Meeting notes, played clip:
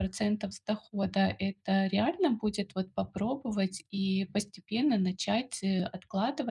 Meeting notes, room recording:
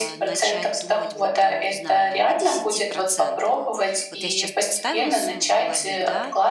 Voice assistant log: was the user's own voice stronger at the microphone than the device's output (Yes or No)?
No